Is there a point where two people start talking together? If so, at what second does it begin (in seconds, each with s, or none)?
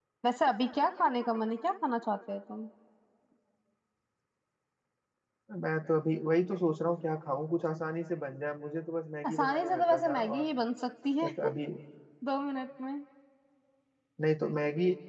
9.3 s